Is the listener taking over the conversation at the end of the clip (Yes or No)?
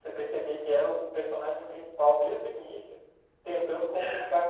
No